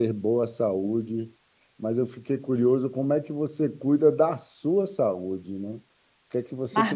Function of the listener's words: listening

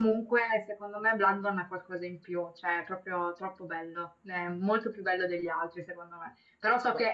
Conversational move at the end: listening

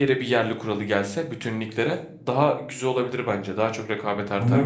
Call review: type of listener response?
taking over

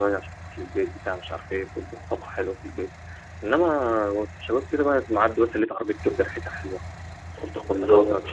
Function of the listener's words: taking over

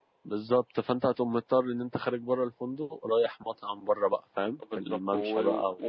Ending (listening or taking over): taking over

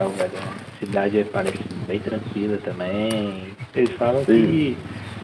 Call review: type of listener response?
listening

